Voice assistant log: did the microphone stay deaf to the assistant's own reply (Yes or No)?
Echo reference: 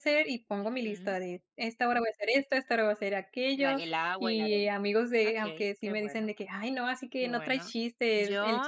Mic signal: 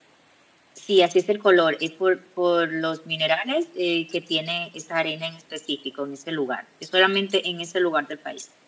Yes